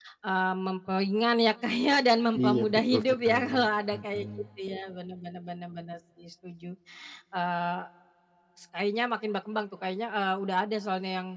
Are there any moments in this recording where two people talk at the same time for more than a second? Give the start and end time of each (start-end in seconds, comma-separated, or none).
2.5-4.3